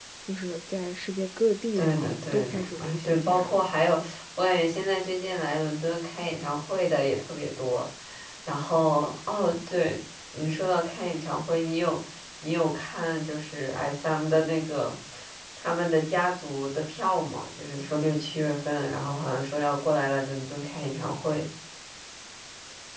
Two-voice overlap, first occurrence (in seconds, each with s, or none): 1.8 s